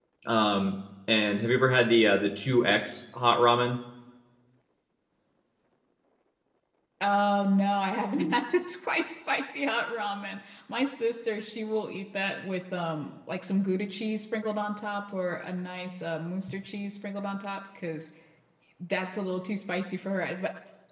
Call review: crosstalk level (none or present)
none